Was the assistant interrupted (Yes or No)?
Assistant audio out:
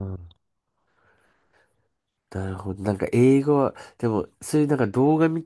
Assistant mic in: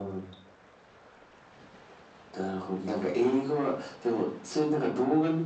No